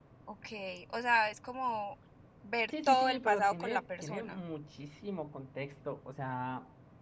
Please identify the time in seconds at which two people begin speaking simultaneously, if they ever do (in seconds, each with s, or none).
2.8 s